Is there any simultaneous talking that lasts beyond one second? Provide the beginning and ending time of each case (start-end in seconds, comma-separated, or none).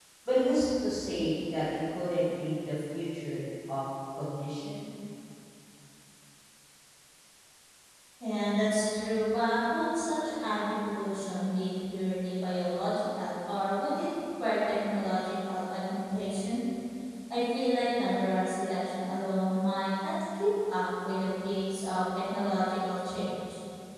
none